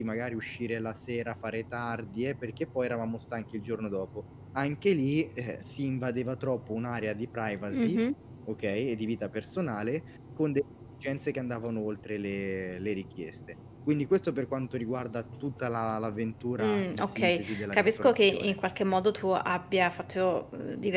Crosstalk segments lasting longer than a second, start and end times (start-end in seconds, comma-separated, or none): 16.6-18.5